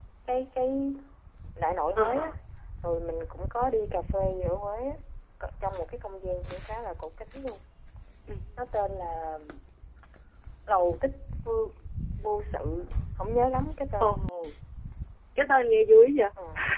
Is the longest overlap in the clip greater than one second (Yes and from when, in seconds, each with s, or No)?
No